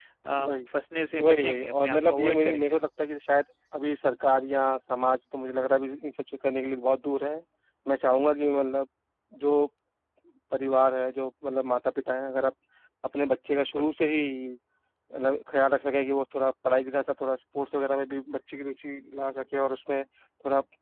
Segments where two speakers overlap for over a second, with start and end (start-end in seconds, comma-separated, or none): 1.2-2.8